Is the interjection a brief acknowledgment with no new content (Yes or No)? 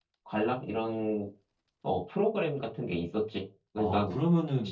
No